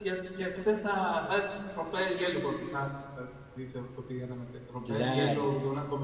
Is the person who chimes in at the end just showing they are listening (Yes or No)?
Yes